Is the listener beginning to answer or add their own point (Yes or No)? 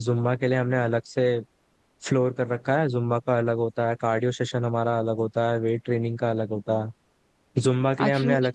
No